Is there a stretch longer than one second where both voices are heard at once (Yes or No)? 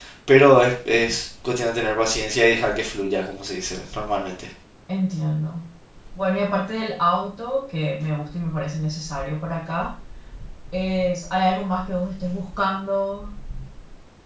No